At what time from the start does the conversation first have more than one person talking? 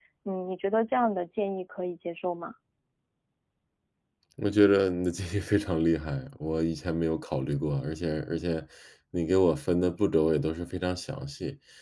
none

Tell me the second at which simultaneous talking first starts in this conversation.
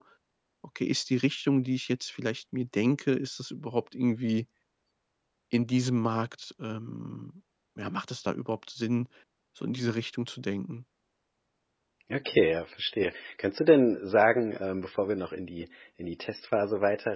none

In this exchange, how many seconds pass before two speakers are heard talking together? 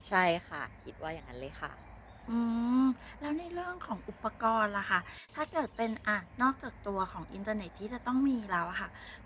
none

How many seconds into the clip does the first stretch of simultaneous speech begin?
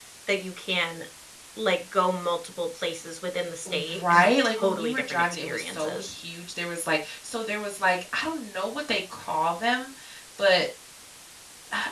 3.6 s

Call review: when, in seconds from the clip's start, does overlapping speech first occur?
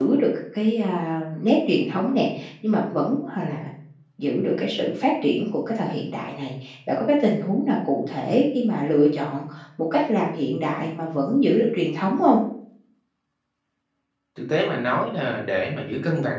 none

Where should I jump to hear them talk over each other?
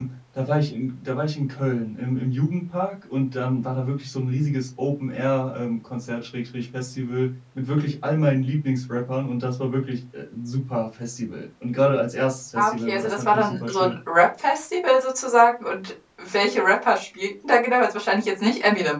12.6 s

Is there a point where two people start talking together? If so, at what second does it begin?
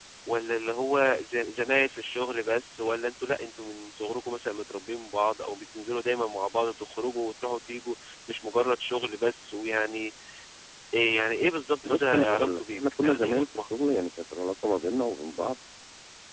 11.8 s

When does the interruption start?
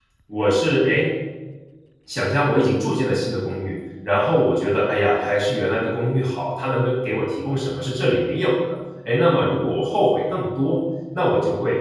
none

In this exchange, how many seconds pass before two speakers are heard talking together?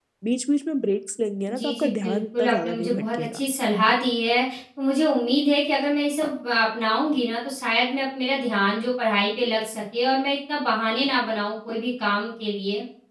1.5 s

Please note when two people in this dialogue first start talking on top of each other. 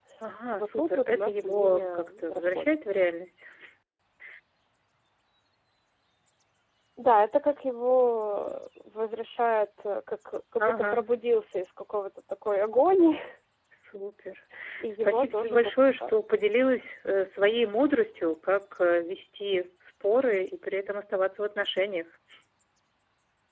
0.5 s

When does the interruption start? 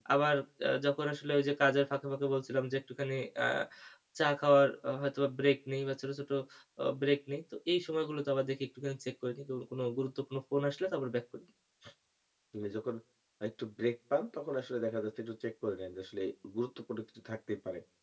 none

